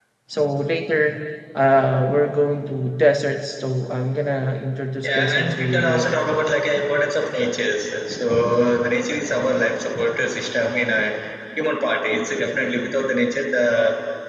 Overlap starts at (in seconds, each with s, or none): 5.0 s